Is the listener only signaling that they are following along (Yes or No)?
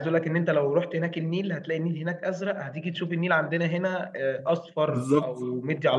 Yes